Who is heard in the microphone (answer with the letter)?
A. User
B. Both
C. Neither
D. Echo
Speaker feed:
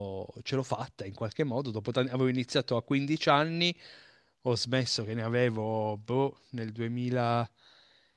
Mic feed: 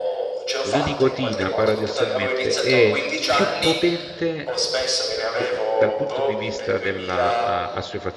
B